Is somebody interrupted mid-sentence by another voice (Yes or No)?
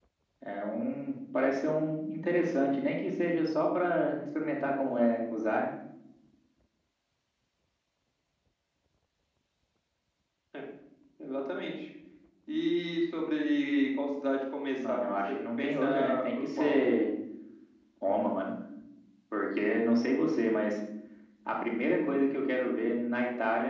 Yes